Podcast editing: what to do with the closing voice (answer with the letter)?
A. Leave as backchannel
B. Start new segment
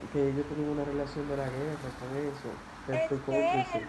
B